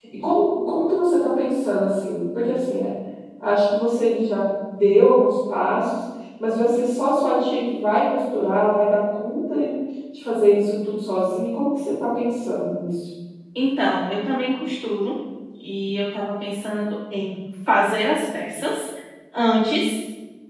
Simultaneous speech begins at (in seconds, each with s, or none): none